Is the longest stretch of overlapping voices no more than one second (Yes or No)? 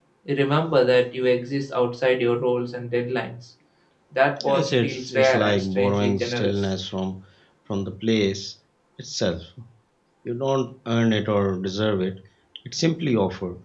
No